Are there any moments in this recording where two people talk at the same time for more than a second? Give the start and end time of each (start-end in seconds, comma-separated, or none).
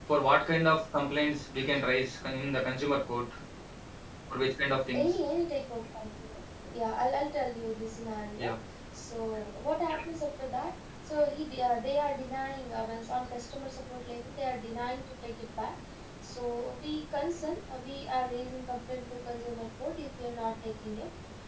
none